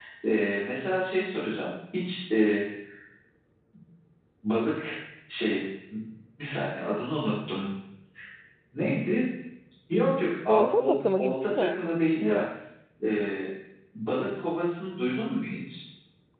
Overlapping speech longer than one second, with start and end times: 10.5-11.8

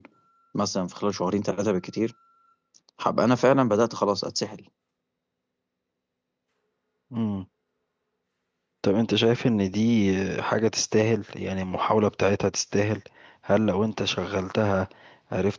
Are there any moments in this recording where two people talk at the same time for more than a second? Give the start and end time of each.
none

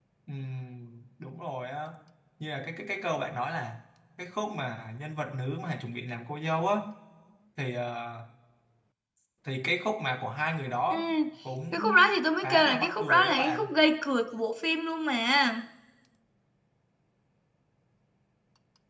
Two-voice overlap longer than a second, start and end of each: 12.4-13.7

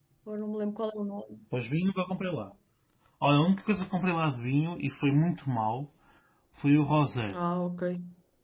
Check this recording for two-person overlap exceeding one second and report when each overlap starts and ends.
none

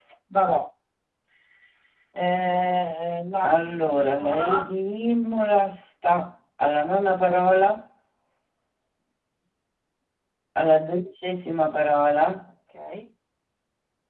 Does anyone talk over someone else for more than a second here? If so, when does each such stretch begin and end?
3.4-4.7

